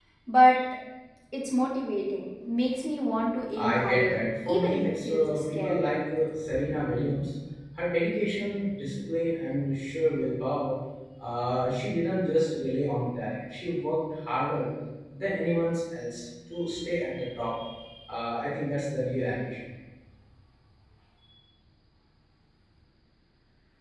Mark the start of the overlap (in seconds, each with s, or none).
3.6 s